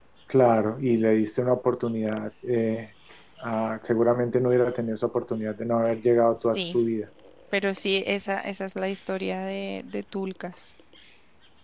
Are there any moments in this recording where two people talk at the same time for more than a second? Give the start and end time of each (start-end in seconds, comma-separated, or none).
none